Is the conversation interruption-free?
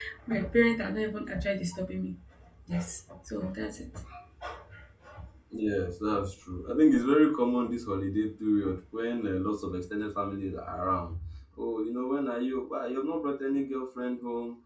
Yes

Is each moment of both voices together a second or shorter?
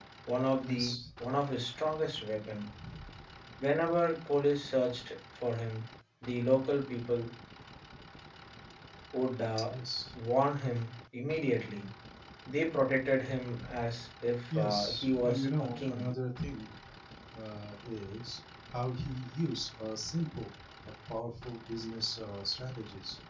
No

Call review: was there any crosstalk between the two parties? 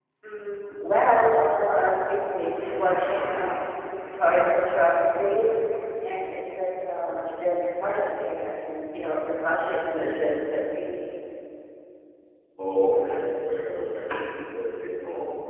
No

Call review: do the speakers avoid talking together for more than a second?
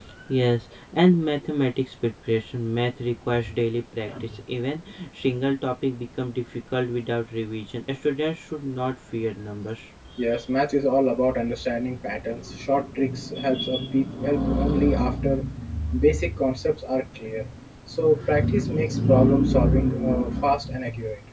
Yes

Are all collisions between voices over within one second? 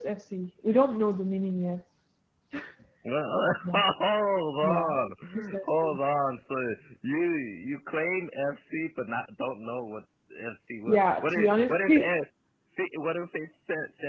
No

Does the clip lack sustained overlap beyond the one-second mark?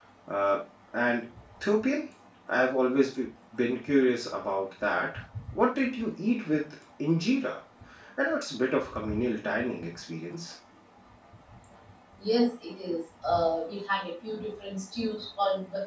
Yes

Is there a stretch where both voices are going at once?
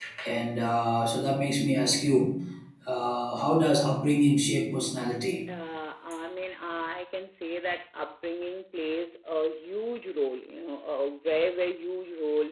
No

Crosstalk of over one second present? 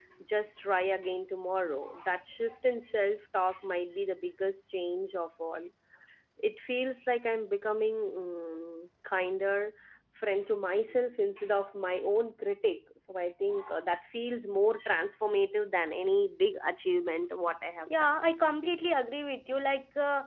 No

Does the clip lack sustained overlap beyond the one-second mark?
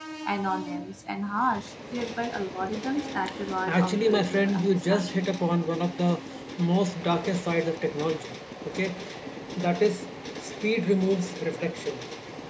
No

